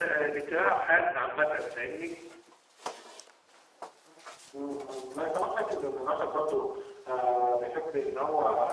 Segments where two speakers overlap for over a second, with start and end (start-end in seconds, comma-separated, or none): none